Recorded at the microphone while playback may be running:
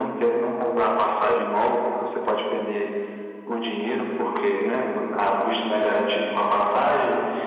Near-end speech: none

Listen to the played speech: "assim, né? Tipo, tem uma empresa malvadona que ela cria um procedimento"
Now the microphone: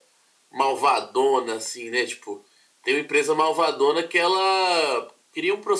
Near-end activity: none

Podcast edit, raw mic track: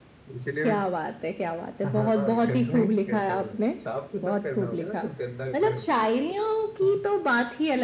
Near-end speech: none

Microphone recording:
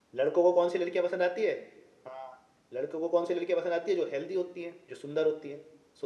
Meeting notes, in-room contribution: present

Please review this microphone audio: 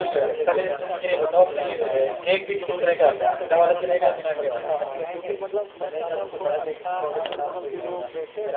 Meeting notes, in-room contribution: present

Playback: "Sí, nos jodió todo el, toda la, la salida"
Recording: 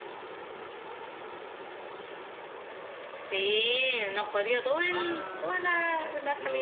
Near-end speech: present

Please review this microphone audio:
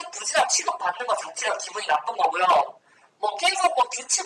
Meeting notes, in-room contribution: none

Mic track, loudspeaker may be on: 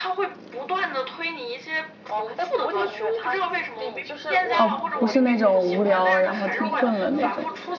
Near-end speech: present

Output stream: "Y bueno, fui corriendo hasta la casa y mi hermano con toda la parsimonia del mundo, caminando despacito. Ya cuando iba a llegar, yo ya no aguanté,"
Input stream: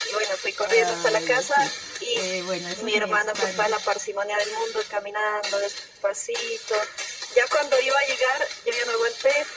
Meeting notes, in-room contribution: present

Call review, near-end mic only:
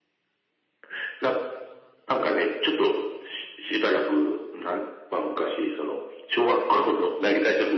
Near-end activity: none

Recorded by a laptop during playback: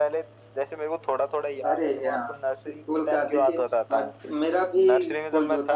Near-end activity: present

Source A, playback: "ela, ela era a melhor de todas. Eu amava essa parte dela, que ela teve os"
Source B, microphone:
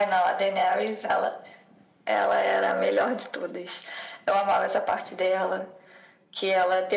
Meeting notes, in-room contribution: none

